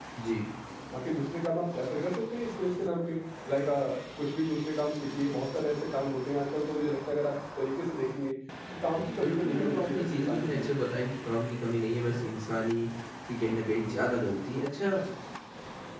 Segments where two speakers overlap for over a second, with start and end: 9.2-10.7

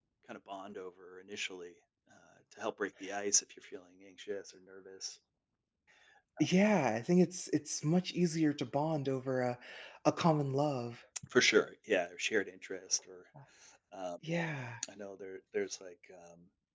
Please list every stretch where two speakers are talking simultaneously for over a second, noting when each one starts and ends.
none

